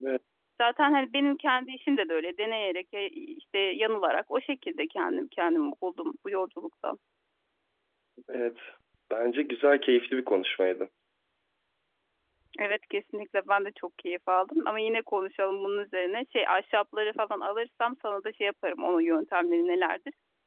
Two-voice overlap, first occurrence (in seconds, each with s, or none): none